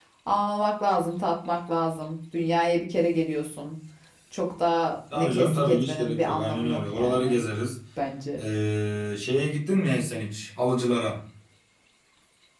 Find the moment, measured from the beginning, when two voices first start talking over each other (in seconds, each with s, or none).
5.1 s